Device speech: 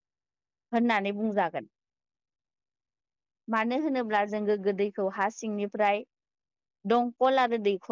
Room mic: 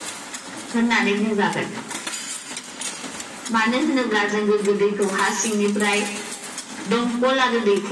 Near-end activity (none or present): none